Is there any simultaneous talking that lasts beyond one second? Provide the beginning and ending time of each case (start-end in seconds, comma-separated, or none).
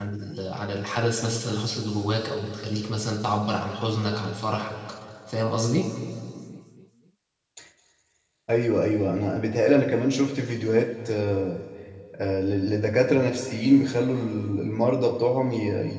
none